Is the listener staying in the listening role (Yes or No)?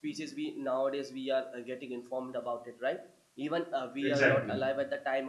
Yes